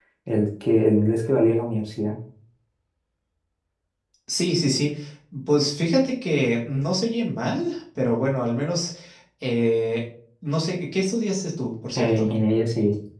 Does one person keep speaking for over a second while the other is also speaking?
No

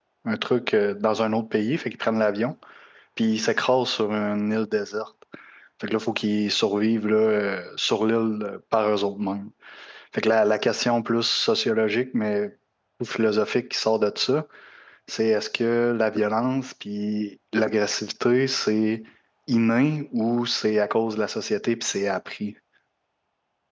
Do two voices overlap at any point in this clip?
No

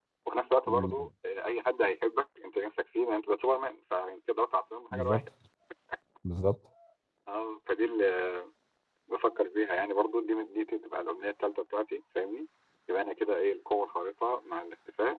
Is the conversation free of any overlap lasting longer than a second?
Yes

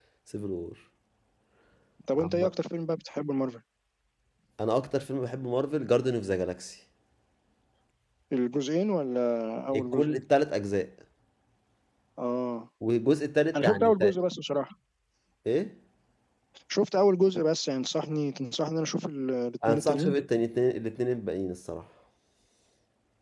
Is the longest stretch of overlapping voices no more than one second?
Yes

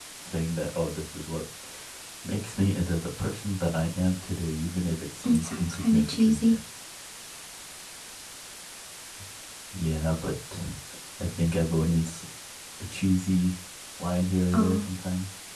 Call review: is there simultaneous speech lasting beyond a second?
Yes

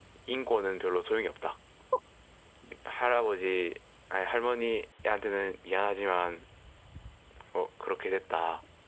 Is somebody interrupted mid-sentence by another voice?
No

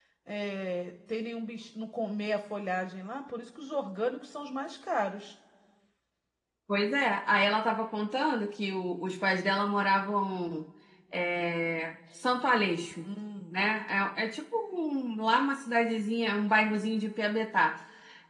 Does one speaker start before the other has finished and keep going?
No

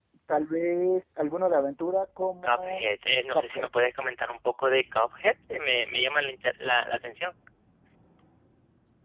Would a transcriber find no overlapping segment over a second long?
Yes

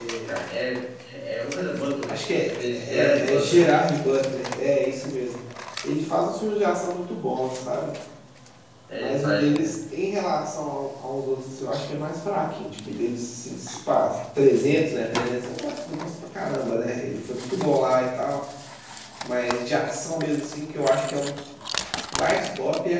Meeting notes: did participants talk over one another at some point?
Yes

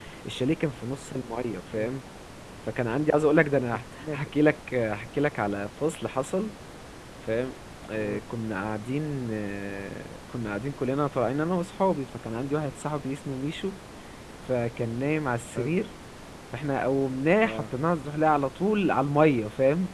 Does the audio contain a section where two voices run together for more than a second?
No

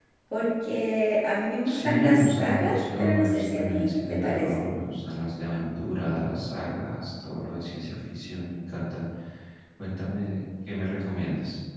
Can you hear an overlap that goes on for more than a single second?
Yes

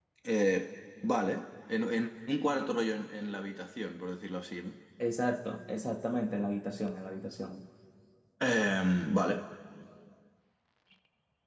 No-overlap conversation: Yes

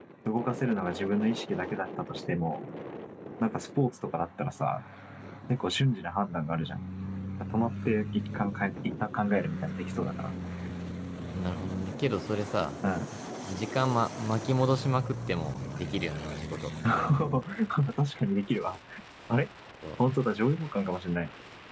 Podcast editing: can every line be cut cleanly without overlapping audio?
Yes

